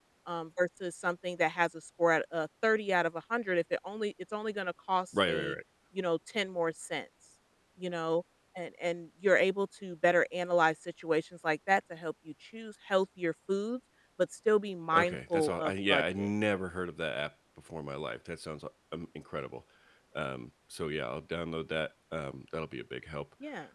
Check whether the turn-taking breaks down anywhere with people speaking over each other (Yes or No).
Yes